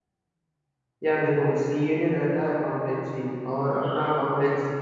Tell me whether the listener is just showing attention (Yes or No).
Yes